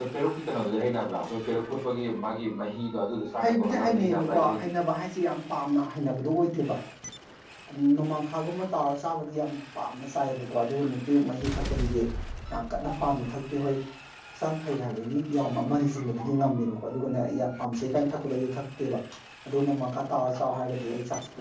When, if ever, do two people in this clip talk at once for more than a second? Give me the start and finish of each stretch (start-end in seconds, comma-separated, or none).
3.4-4.7